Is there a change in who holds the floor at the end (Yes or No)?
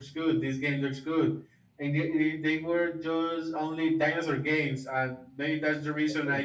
No